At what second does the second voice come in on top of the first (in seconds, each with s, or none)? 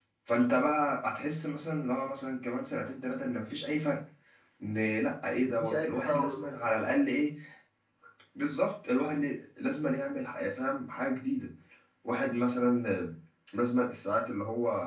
5.4 s